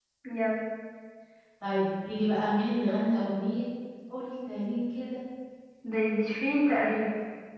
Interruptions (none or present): none